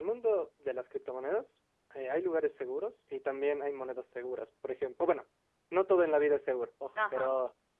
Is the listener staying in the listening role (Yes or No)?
Yes